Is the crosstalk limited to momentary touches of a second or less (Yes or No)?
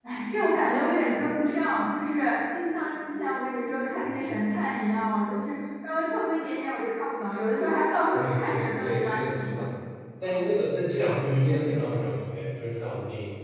No